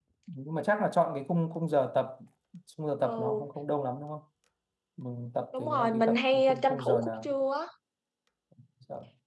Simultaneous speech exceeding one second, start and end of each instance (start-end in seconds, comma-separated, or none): 5.6-7.3